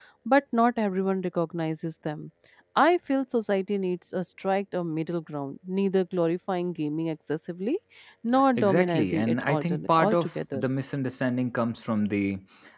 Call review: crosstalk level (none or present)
present